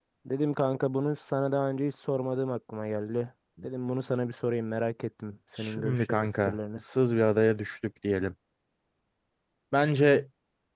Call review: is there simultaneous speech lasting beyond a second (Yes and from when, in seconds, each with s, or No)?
Yes, from 5.6 s